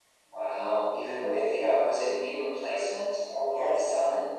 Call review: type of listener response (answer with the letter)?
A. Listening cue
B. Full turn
B